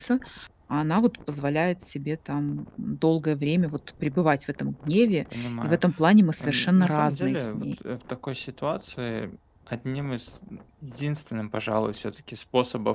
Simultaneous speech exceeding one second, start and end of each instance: 6.4-7.7

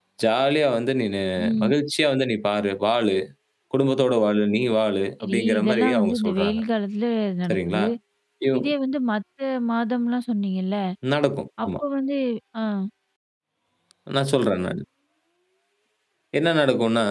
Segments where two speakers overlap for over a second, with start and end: 5.2-6.6

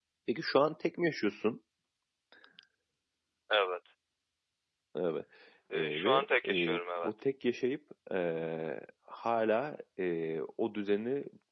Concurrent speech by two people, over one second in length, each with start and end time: 5.7-7.1

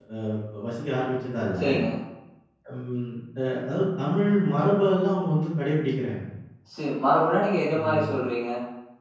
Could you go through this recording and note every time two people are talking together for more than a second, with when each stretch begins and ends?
none

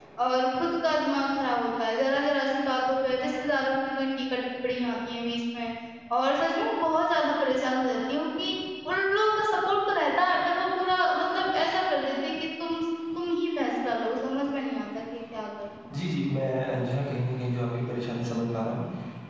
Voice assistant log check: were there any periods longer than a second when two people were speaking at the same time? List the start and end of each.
none

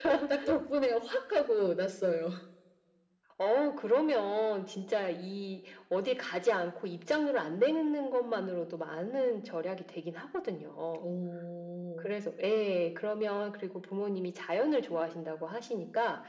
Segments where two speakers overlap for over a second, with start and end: none

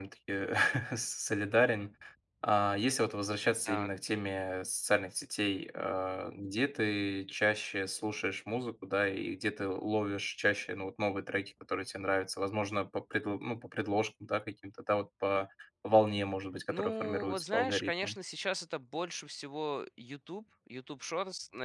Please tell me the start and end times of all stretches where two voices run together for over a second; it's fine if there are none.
16.7-18.2

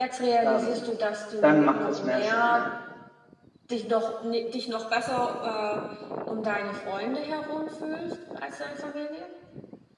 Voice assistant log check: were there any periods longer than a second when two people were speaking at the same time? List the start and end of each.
1.4-2.6

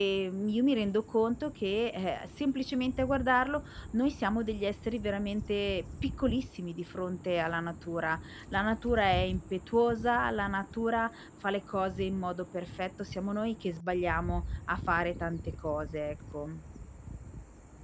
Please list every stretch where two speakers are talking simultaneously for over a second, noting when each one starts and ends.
none

